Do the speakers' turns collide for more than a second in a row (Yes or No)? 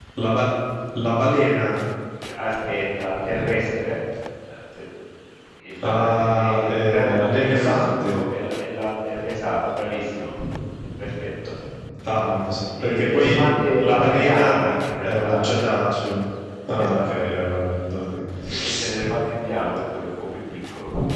Yes